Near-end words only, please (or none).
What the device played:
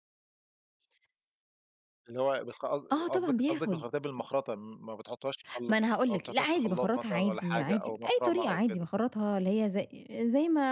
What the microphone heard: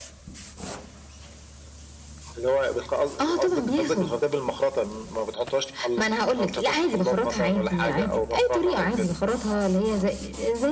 none